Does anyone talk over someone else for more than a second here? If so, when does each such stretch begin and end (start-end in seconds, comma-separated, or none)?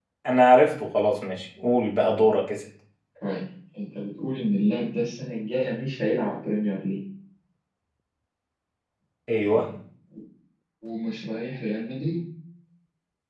none